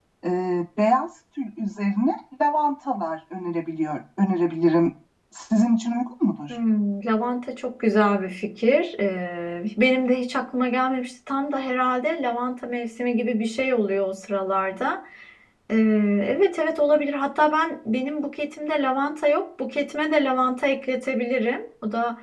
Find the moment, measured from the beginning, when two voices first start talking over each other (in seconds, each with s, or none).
none